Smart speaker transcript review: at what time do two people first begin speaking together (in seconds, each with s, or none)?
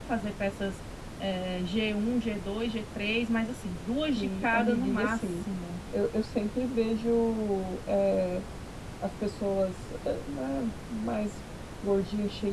4.2 s